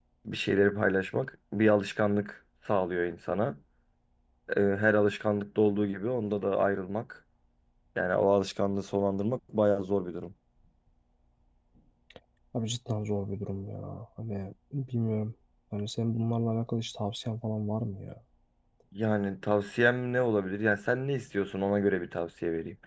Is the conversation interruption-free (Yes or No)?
Yes